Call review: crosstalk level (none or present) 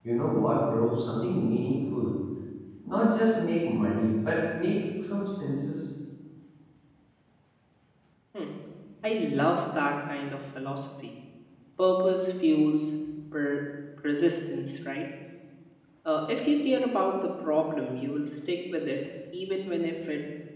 none